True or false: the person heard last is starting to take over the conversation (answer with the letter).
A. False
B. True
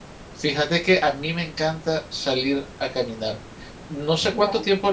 A